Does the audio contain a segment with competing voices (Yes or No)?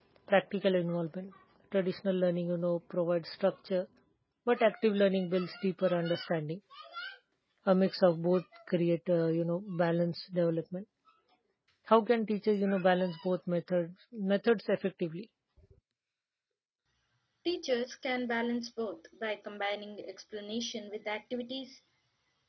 No